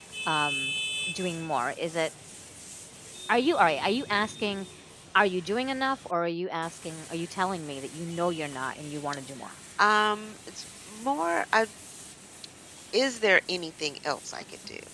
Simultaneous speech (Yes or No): No